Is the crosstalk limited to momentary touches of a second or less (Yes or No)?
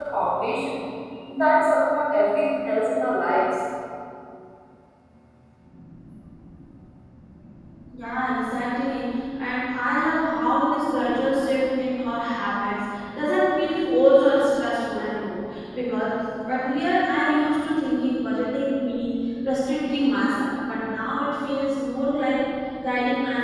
Yes